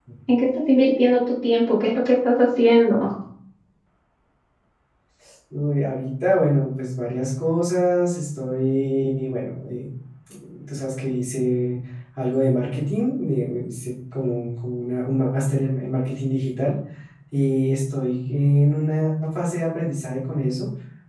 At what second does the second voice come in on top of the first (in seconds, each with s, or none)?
none